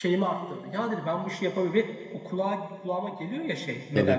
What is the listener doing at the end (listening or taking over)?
listening